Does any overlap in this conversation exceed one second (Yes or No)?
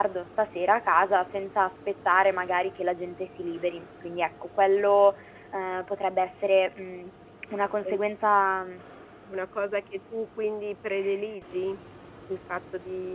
No